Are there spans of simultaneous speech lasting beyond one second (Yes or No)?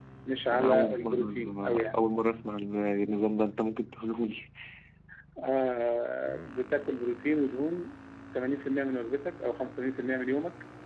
Yes